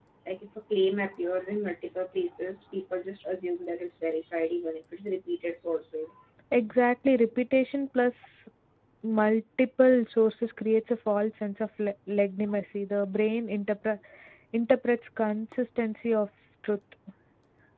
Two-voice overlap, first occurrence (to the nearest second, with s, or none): none